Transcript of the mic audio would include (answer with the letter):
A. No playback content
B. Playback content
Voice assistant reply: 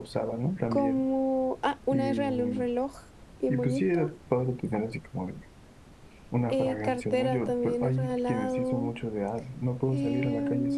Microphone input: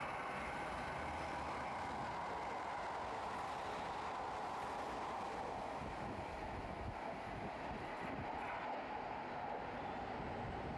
A